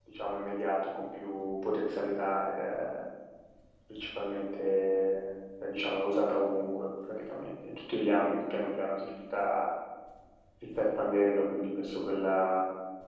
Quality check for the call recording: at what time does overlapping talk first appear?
none

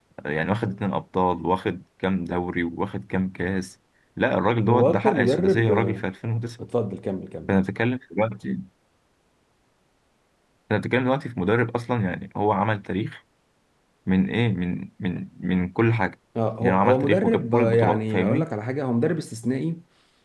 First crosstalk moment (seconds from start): 4.7 s

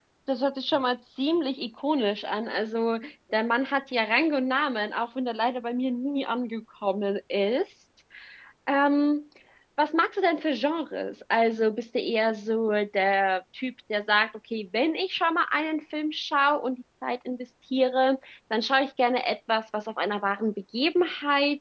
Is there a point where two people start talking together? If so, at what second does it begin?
none

